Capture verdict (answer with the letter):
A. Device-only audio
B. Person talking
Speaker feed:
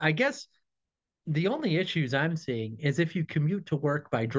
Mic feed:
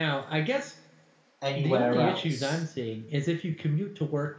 B